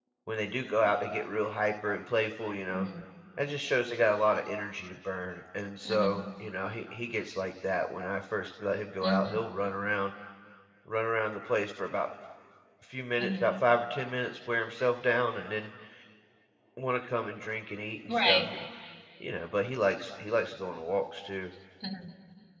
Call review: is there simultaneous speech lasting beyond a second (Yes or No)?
No